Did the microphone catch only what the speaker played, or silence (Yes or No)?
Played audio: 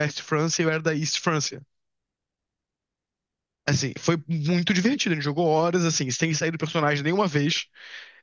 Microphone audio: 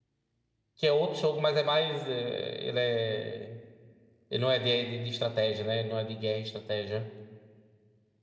No